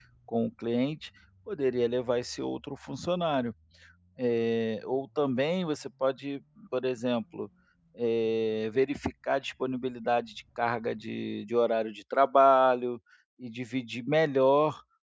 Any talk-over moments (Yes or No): No